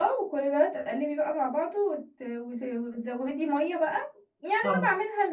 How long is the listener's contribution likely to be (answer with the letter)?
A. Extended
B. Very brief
B